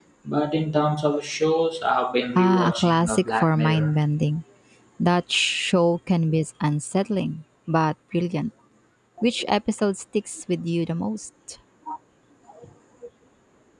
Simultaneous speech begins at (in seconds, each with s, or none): 2.4 s